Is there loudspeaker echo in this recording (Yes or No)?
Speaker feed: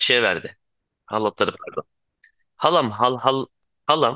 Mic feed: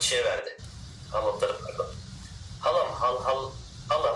Yes